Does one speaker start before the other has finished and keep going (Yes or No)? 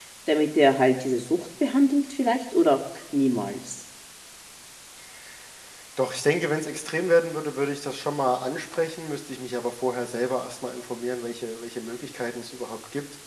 No